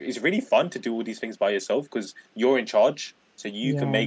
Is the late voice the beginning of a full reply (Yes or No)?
No